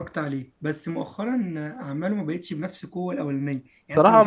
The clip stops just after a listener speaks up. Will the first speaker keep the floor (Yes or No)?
Yes